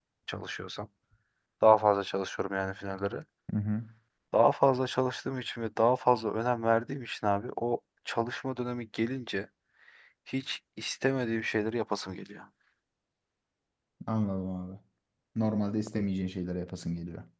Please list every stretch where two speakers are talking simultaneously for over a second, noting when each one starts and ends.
none

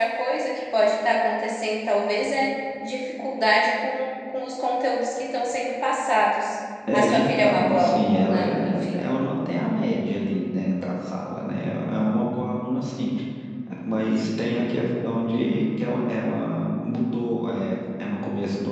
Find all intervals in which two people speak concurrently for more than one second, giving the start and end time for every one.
6.9-9.0

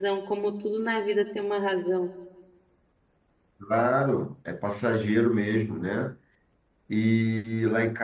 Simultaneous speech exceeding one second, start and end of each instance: none

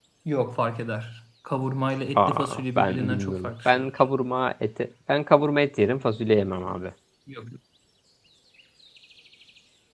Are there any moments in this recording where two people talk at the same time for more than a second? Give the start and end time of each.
2.2-3.8

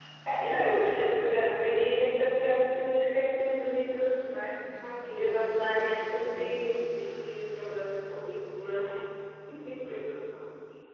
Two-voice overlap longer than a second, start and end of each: 5.1-6.5

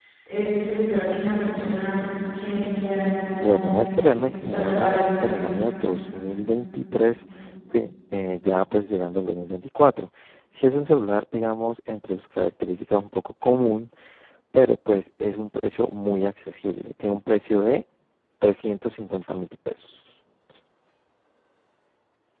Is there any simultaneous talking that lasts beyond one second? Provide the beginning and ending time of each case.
3.4-5.3

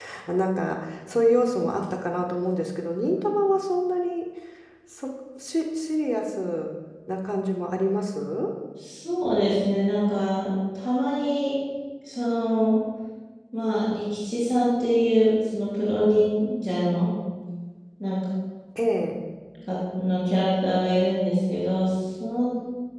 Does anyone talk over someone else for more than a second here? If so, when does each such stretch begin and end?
none

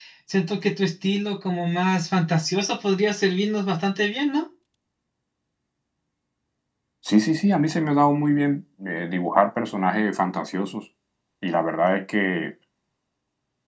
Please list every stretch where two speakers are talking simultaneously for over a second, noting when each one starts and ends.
none

